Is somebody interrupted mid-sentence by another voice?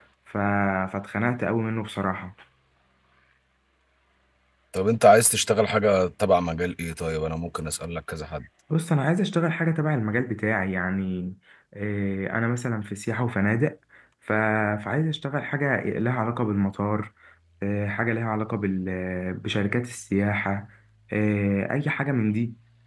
No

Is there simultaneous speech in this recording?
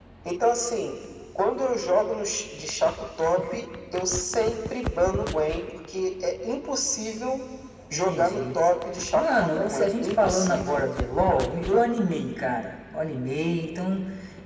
Yes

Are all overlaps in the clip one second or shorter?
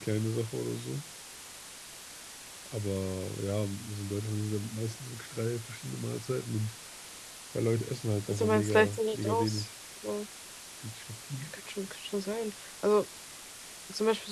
No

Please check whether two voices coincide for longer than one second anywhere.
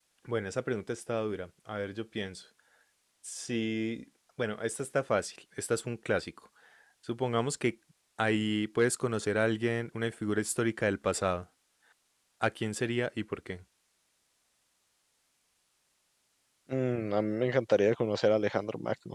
No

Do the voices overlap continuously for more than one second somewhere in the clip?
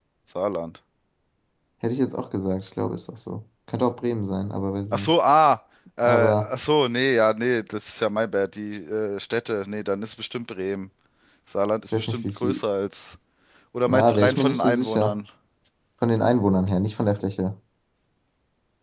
Yes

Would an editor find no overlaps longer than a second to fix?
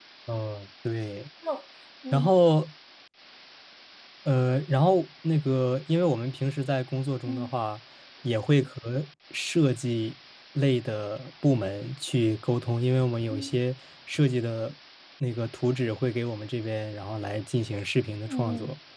Yes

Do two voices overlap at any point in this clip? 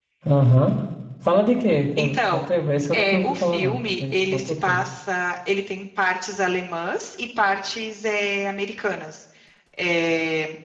Yes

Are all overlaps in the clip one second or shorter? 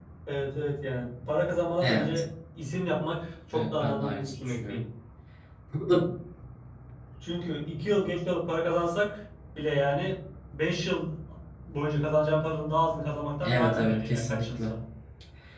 No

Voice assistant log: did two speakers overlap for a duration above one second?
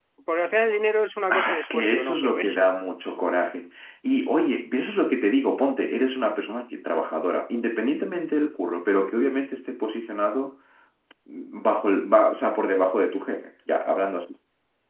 Yes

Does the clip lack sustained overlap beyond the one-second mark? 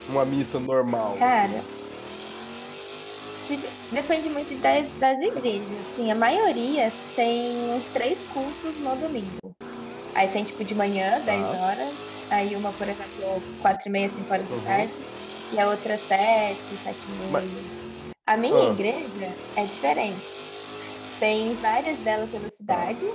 Yes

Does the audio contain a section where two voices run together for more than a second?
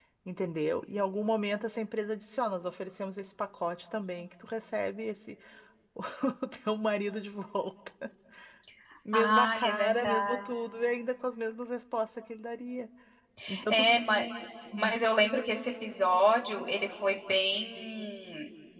Yes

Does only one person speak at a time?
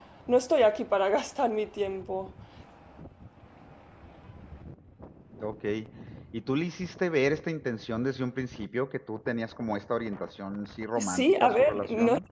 No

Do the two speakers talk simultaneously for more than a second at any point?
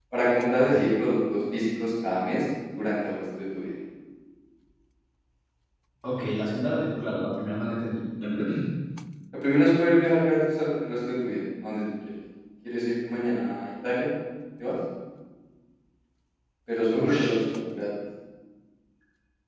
No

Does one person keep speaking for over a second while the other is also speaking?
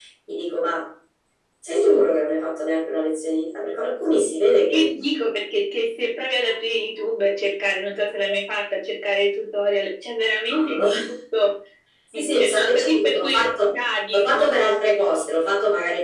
Yes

